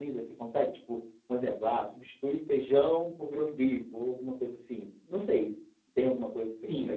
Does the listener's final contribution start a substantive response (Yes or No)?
Yes